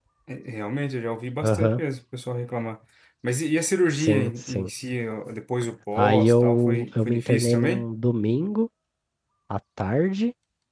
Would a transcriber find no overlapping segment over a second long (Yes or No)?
No